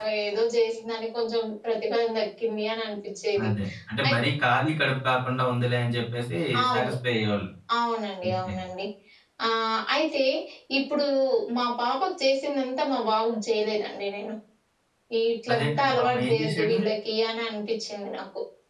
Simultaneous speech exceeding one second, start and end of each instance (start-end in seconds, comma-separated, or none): 15.5-16.8